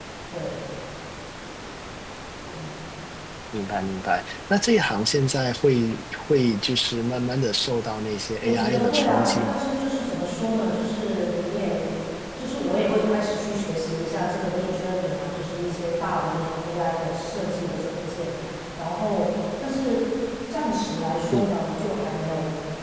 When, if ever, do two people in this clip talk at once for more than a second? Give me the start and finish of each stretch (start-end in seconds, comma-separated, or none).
8.4-9.6